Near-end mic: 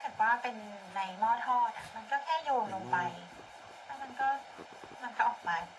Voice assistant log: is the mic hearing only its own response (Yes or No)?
No